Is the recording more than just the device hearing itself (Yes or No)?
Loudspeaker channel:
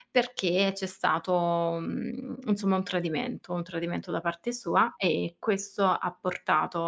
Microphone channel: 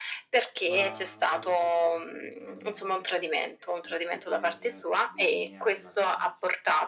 Yes